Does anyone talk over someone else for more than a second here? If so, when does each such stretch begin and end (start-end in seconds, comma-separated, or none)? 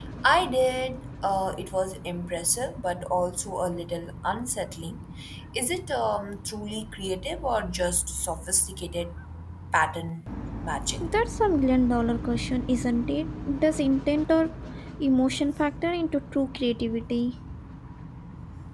none